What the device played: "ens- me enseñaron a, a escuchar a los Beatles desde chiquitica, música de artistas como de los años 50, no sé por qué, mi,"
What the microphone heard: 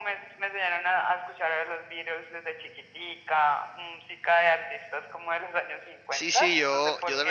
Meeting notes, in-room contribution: present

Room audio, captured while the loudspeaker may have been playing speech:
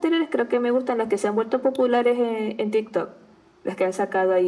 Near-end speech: none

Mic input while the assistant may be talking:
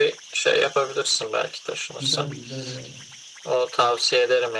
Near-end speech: present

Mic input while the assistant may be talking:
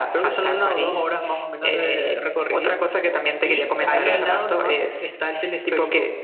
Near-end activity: present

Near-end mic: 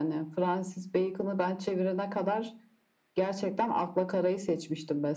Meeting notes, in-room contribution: none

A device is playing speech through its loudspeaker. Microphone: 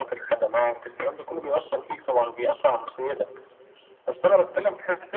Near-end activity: none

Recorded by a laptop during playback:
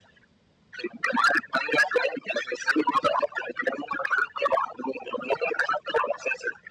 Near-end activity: none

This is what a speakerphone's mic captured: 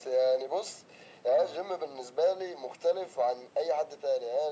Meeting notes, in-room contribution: present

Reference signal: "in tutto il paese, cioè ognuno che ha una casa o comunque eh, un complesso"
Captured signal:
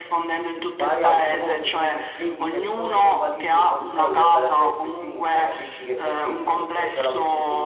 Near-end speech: present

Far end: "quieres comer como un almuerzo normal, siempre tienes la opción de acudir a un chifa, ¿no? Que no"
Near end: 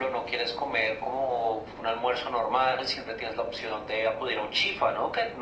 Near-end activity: none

